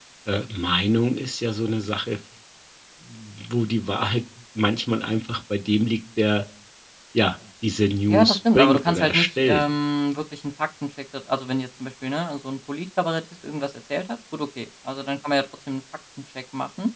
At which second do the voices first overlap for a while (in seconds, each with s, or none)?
8.1 s